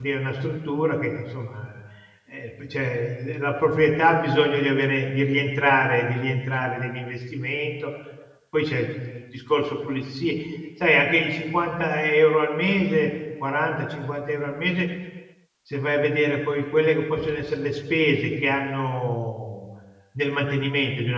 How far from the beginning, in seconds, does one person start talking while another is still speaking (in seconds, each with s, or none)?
none